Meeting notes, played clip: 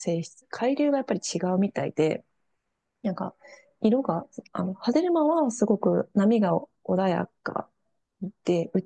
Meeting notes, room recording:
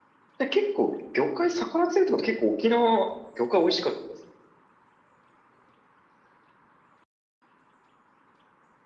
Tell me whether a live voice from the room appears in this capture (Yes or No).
Yes